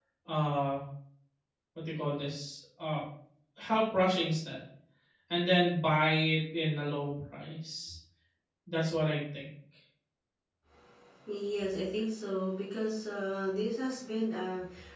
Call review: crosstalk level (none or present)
none